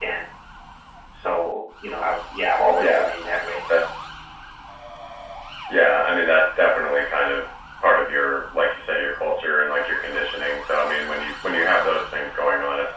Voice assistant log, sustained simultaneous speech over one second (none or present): none